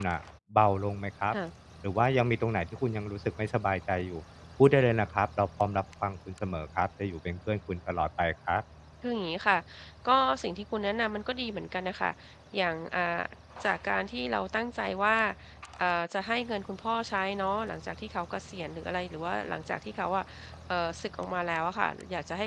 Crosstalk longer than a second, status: none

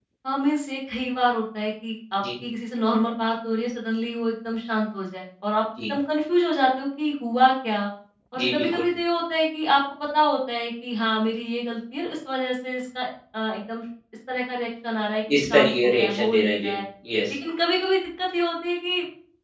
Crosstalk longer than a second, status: present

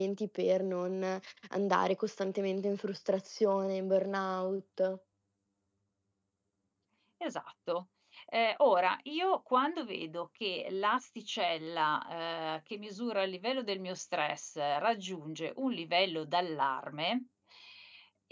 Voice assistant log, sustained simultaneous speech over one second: none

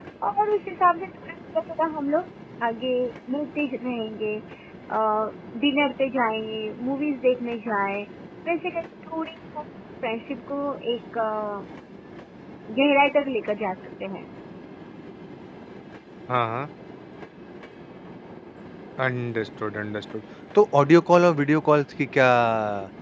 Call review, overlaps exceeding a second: none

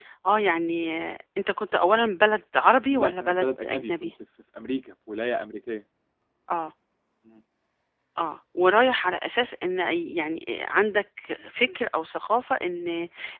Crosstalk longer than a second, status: present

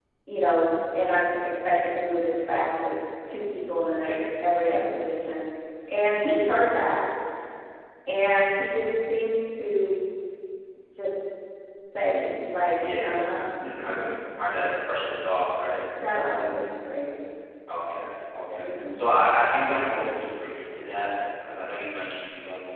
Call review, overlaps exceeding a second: none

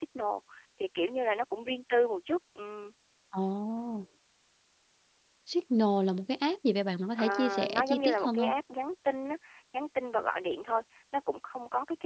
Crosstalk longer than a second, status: present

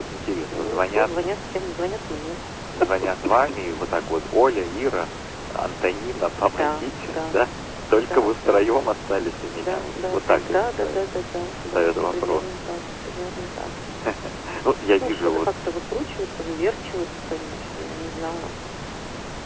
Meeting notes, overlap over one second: present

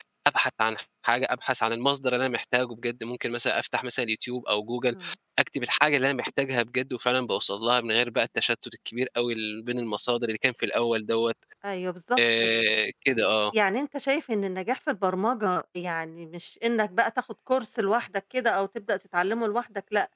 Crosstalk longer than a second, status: none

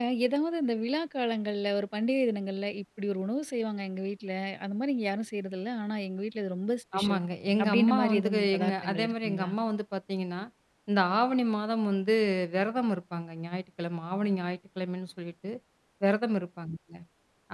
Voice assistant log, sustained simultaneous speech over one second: present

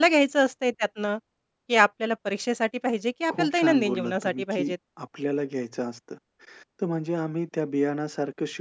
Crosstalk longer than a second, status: present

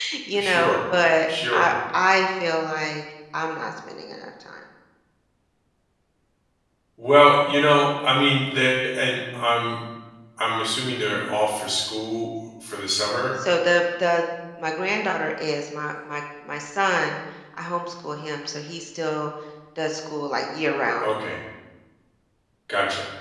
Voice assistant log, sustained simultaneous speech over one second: none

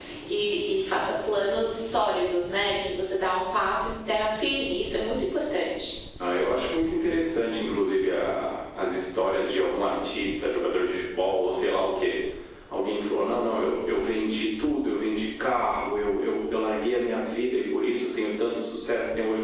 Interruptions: none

